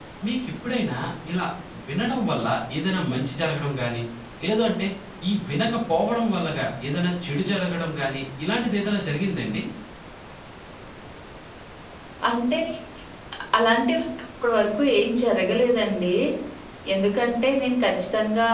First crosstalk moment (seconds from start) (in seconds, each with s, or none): none